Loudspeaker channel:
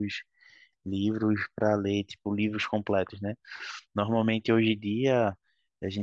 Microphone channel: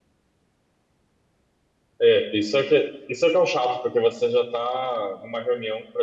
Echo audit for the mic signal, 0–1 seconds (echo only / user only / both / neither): neither